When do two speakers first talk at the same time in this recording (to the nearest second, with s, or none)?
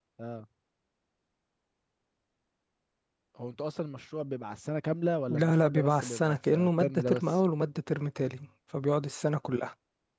5 s